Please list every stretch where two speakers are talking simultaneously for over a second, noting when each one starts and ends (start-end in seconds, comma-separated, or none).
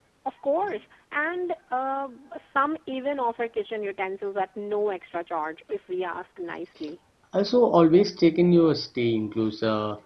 none